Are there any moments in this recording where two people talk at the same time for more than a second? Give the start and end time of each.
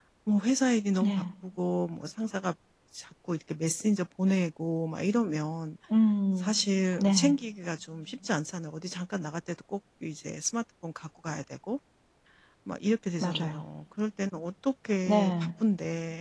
none

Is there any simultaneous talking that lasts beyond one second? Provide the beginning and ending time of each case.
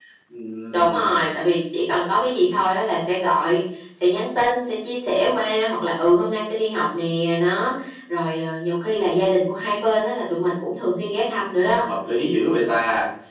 none

